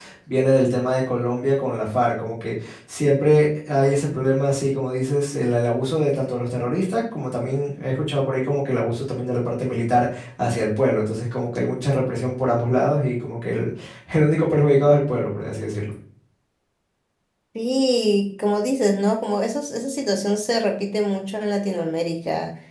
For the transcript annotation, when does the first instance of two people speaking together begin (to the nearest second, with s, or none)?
none